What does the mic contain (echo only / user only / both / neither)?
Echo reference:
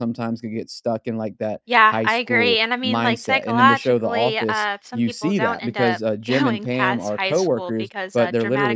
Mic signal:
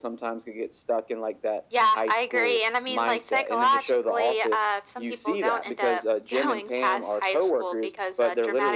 echo only